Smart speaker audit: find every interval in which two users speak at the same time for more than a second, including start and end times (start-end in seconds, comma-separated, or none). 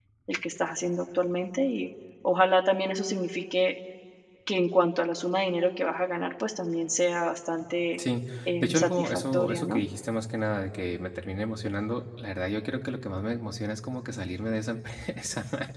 8.6-9.8